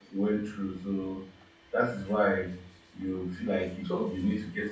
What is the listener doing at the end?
listening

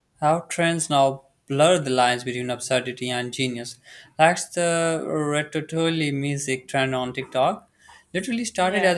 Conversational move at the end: listening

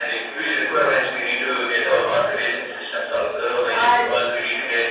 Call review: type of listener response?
listening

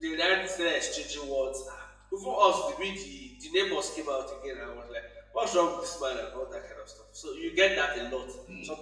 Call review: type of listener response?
listening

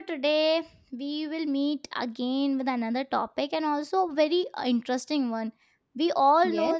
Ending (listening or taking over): listening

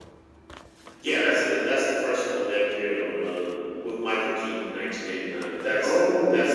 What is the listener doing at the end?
listening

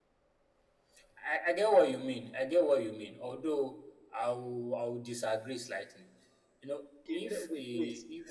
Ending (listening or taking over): taking over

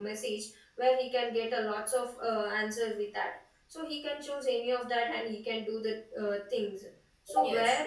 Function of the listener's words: listening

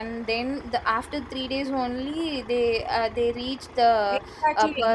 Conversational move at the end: taking over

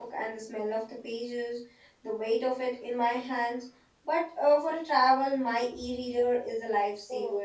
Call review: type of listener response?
taking over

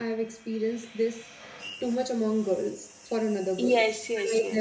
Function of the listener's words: taking over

